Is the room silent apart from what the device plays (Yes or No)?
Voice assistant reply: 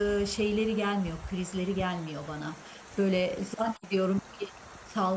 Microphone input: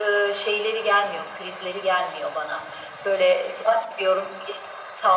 Yes